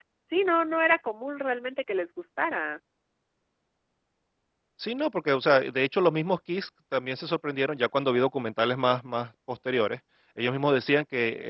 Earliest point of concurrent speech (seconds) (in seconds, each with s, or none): none